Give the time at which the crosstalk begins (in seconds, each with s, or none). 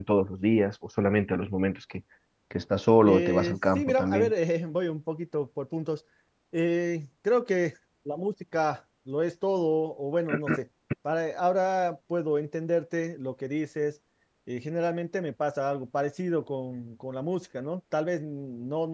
3.0 s